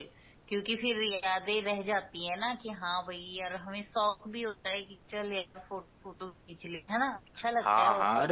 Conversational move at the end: taking over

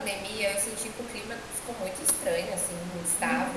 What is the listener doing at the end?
taking over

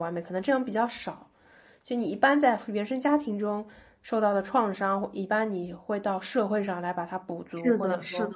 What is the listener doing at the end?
taking over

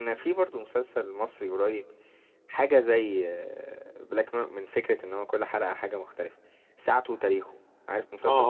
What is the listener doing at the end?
taking over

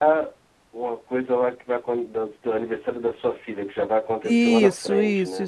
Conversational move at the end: taking over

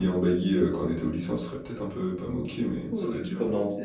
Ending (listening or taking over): taking over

